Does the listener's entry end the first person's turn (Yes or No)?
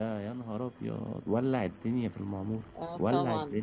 Yes